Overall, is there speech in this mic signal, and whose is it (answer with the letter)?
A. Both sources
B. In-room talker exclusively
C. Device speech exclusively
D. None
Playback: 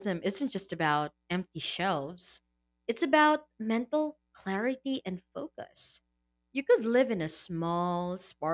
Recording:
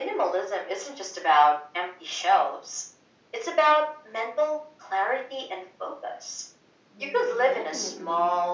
A